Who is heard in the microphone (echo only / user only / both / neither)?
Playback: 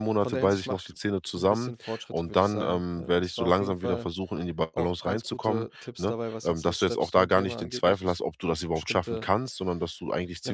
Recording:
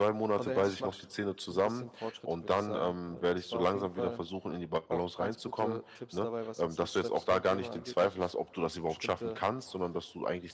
echo only